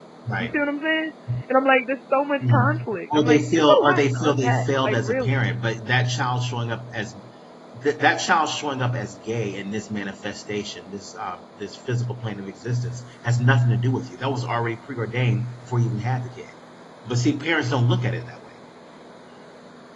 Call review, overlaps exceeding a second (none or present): present